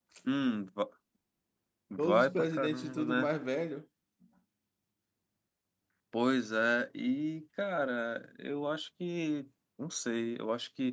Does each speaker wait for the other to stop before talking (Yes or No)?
No